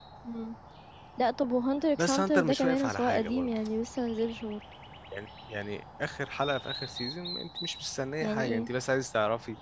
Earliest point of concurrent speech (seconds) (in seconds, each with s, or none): 2.0 s